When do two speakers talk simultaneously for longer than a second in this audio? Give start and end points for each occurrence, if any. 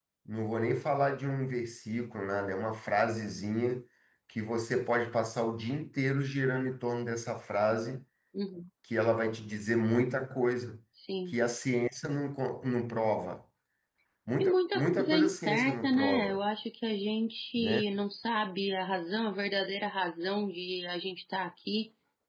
14.4-16.4

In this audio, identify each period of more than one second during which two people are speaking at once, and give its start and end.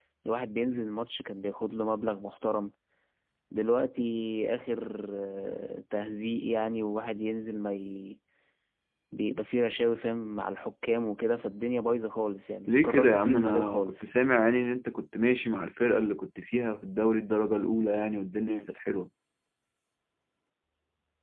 12.7-14.0

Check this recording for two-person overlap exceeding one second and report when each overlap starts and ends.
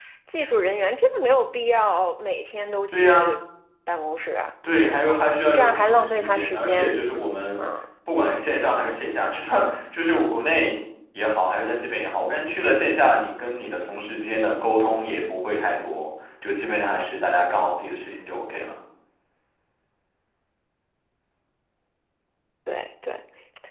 5.5-7.0

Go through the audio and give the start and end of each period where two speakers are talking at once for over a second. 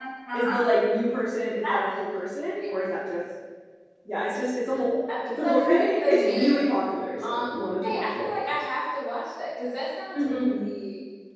5.2-6.8

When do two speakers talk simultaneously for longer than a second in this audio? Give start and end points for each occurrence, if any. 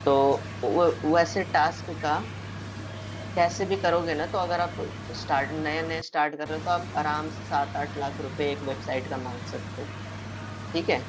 none

